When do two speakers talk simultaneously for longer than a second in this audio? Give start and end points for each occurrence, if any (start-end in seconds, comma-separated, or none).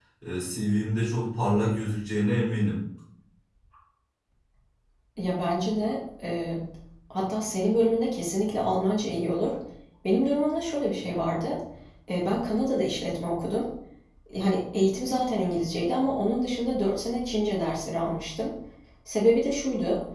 none